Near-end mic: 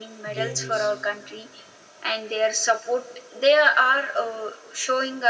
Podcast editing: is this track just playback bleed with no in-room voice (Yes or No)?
No